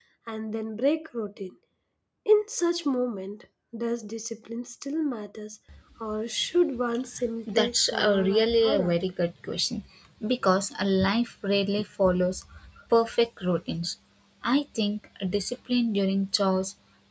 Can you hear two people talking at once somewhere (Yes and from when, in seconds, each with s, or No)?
Yes, from 7.5 s